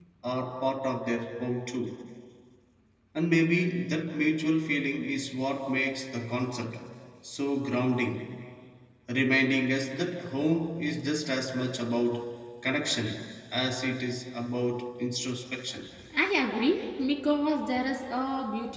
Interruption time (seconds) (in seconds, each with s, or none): none